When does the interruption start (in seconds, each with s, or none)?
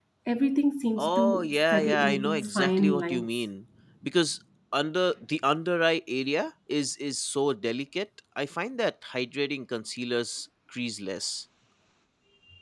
1.0 s